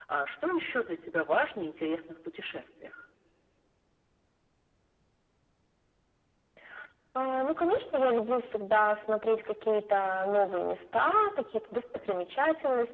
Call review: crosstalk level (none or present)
none